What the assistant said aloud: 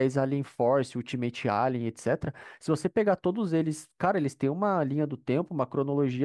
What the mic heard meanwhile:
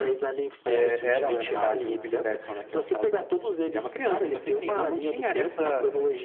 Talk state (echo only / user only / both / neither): both